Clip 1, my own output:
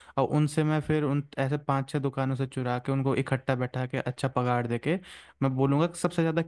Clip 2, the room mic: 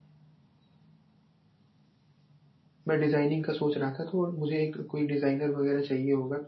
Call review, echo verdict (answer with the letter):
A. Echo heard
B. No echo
B